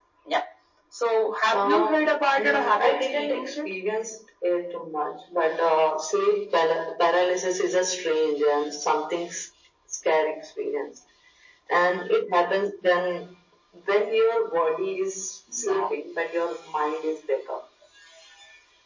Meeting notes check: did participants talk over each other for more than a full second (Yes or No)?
Yes